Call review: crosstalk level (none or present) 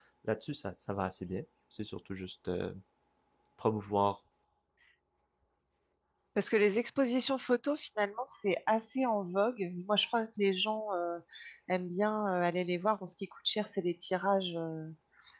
none